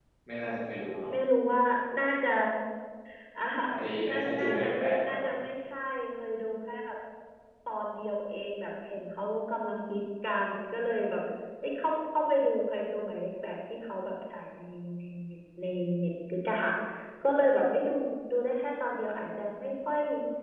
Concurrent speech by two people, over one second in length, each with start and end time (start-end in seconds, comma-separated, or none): 4.1-5.3